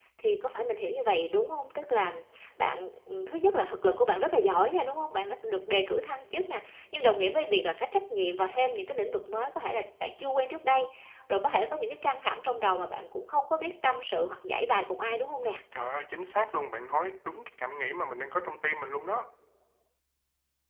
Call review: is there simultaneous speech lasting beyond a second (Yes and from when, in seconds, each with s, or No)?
No